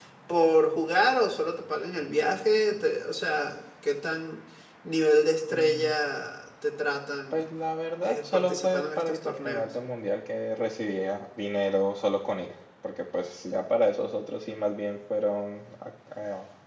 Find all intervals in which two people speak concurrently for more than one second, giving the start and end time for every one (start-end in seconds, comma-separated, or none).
8.0-9.6